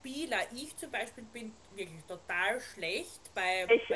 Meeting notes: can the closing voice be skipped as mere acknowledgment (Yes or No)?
Yes